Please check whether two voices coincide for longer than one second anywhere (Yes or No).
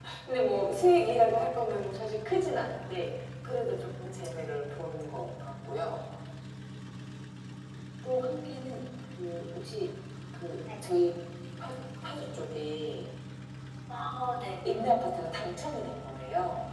No